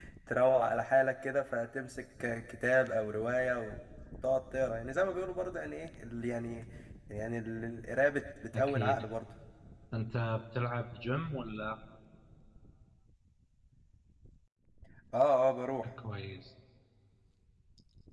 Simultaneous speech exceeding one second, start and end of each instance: none

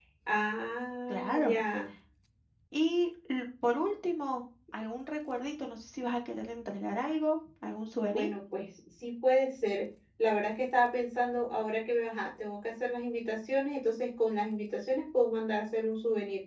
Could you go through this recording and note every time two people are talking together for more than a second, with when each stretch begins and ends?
none

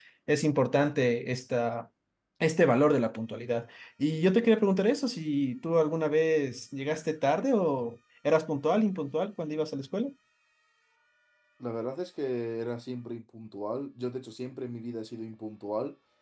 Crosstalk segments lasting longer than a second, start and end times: none

